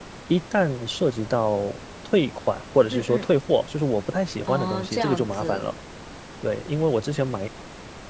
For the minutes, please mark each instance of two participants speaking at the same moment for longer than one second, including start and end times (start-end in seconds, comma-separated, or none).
4.5-5.7